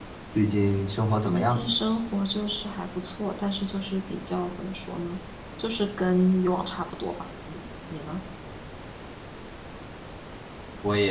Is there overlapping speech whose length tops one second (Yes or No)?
No